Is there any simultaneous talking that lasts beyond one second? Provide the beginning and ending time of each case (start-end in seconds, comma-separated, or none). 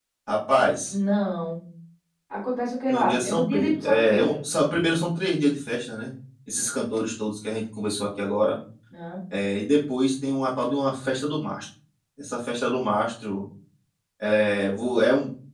2.9-4.3